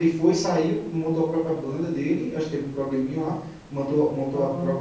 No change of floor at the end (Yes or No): Yes